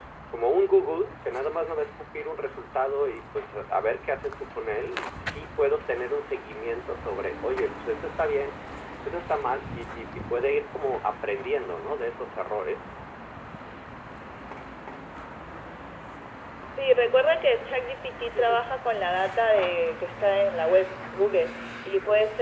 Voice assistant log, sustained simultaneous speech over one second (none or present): none